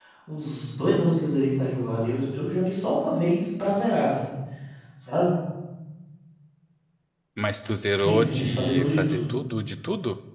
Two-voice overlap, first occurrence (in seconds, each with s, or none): 8.0 s